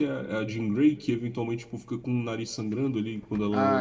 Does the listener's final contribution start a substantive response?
Yes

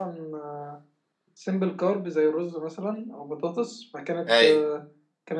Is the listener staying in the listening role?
Yes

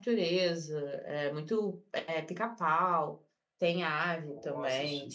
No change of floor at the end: Yes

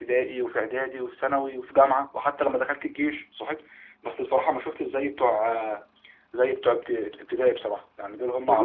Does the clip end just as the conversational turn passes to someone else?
Yes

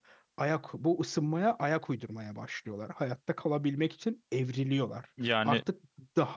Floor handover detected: No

